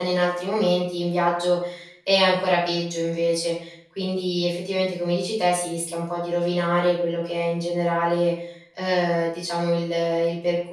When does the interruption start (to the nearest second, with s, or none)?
none